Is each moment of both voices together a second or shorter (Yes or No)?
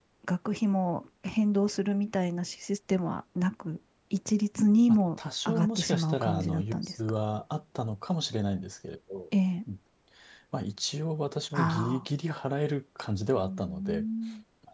No